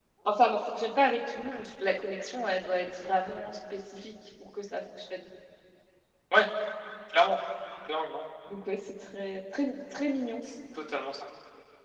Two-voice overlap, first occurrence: none

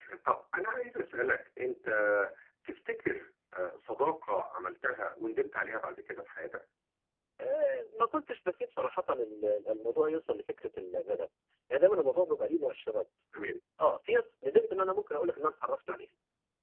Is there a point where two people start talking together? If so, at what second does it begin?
none

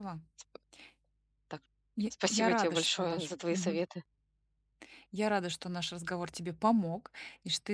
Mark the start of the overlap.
2.3 s

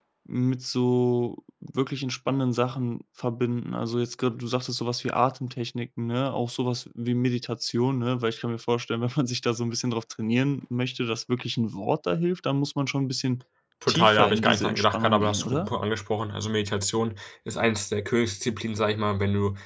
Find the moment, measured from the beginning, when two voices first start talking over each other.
13.9 s

